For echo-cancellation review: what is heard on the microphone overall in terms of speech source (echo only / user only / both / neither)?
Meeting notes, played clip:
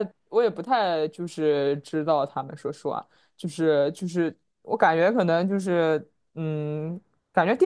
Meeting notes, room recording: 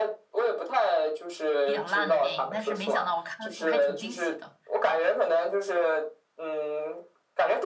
both